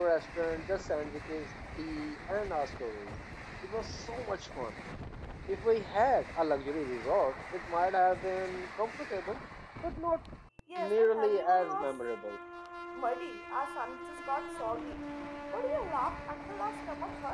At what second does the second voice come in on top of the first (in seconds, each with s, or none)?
10.8 s